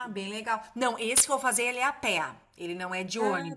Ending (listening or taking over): listening